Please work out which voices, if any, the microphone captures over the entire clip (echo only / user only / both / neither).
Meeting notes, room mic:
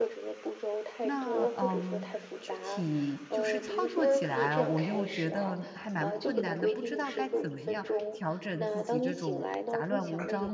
both